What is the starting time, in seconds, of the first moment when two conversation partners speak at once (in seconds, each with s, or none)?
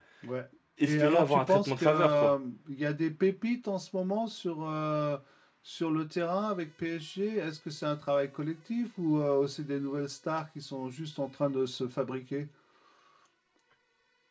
0.8 s